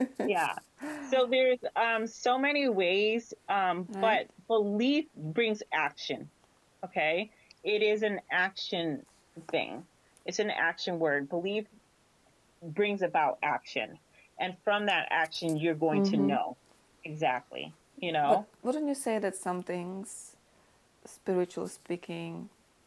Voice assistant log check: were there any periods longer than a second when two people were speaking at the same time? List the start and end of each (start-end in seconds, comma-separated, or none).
none